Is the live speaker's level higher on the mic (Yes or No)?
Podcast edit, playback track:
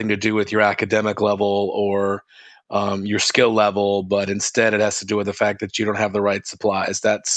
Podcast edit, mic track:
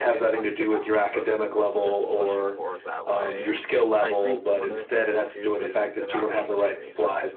No